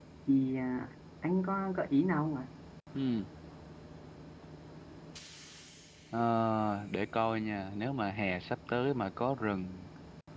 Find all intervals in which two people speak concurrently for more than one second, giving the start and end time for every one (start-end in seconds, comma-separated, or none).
none